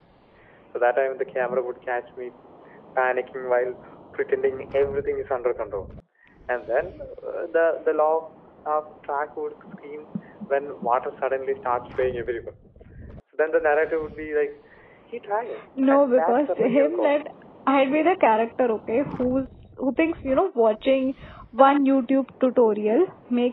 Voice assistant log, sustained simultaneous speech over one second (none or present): present